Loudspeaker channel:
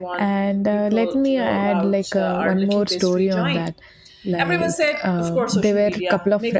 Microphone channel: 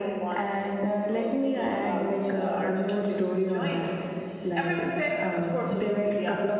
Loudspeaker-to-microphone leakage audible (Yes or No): Yes